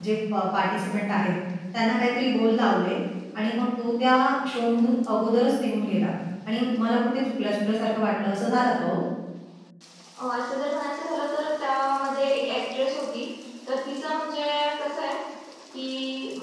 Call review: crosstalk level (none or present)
none